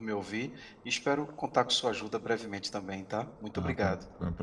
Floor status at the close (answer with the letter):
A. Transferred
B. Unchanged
A